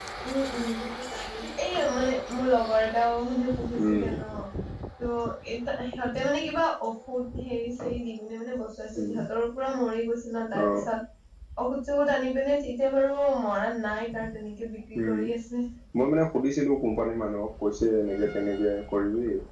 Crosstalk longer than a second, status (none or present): none